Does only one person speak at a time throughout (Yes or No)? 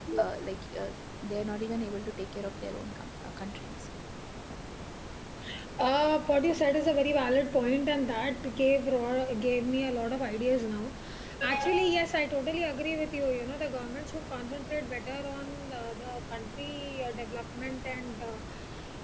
Yes